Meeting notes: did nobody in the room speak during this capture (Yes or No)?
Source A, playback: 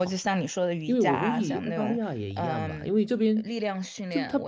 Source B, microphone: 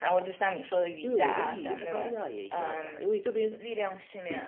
Yes